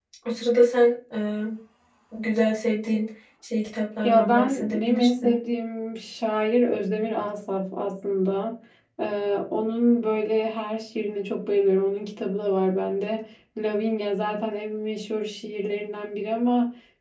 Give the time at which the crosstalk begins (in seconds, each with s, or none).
4.0 s